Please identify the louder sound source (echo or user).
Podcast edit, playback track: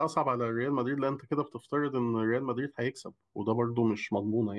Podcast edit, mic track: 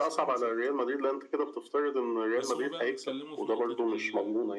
echo